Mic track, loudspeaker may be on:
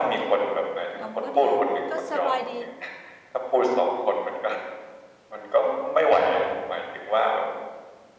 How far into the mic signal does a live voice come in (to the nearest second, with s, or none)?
1 s